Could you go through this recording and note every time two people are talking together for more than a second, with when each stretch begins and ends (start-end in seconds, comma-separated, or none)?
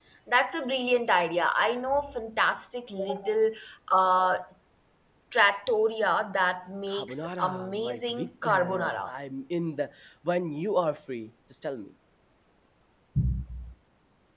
6.9-9.1